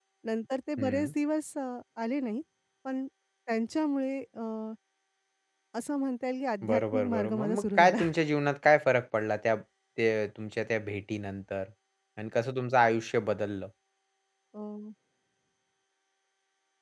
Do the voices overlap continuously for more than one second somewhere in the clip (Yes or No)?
Yes